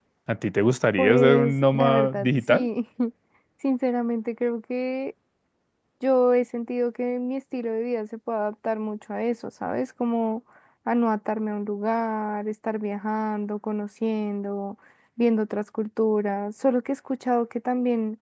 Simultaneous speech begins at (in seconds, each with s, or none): 1.0 s